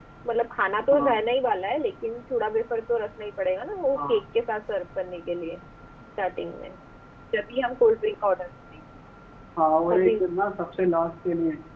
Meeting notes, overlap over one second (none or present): none